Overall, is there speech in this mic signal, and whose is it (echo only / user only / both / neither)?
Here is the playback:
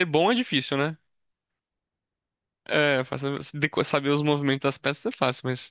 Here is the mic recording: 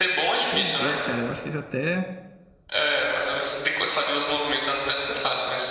both